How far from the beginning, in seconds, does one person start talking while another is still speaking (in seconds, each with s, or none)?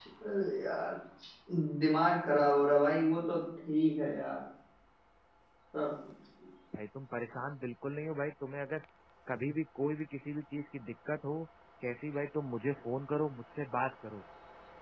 none